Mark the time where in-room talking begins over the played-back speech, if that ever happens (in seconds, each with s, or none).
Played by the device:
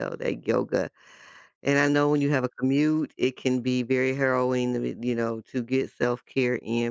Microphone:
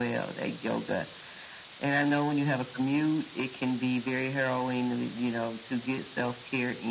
none